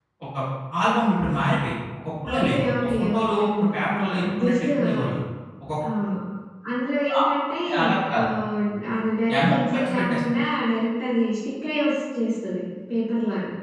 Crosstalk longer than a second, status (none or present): present